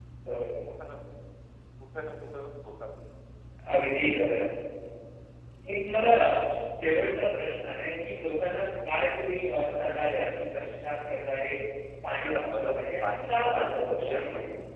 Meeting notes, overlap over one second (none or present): present